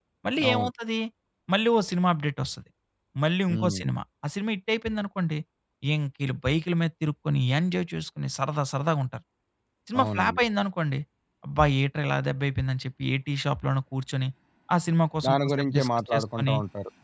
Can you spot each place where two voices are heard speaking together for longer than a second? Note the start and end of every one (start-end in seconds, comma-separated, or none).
15.2-16.5